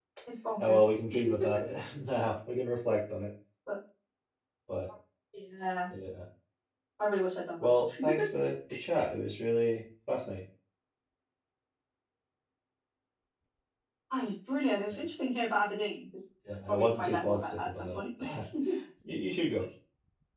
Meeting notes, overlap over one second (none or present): present